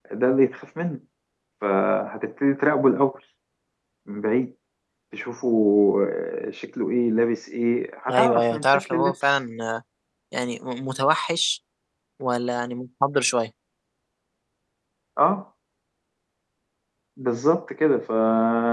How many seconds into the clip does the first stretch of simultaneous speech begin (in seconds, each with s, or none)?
8.1 s